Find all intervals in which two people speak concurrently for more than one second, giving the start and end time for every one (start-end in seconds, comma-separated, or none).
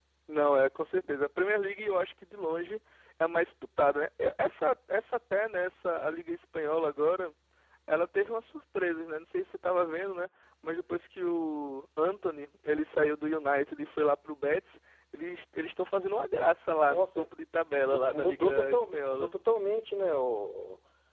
17.7-19.3